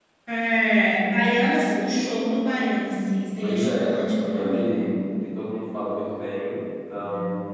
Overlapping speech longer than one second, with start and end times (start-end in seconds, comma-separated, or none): 3.4-4.8